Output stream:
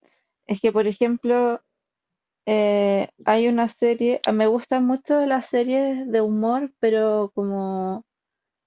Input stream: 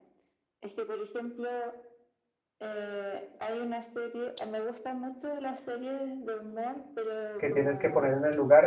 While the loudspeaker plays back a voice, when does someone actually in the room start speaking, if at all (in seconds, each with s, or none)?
7.4 s